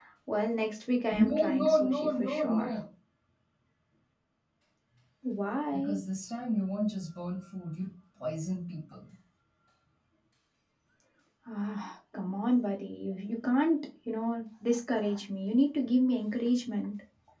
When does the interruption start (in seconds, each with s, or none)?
1.1 s